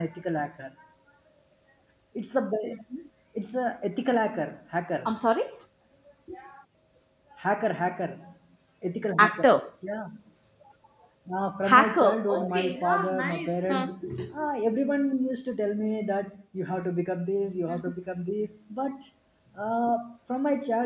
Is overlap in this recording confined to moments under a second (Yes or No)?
No